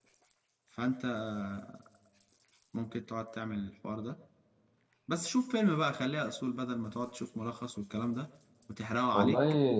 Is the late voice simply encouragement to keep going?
No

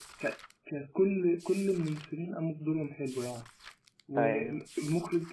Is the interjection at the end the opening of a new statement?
No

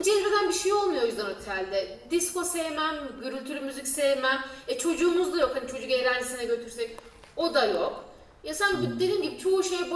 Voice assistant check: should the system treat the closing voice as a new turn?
No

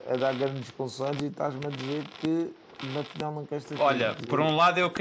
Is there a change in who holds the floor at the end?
Yes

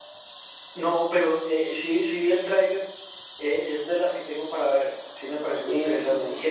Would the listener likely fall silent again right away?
No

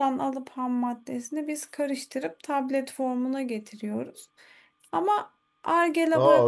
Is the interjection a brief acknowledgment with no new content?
No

